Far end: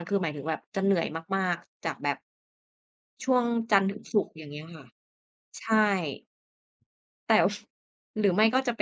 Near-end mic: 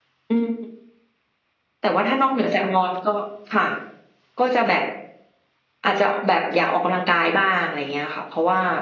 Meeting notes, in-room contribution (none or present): present